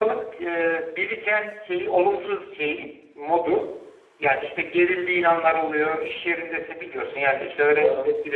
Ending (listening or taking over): listening